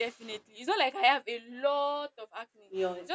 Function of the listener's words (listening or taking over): taking over